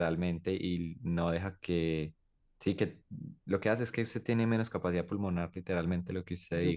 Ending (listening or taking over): taking over